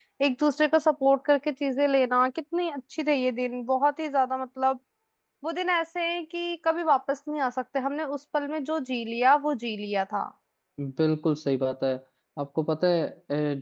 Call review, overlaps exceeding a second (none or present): none